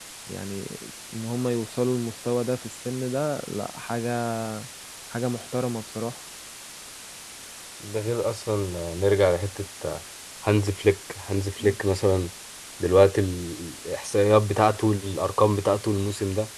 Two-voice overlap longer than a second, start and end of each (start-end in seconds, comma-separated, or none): none